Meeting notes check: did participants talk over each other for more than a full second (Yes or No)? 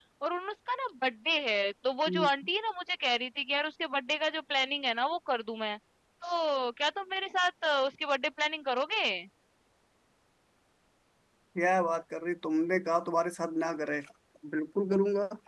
No